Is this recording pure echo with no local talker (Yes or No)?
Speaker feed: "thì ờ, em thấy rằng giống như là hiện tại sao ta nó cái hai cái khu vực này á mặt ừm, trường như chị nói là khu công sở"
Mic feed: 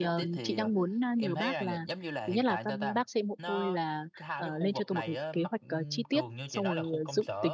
No